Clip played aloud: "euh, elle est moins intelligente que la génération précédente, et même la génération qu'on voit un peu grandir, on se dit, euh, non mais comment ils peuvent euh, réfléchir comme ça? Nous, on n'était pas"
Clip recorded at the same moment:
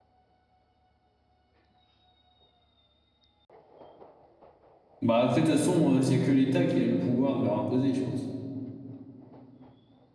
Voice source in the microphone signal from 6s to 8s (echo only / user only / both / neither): user only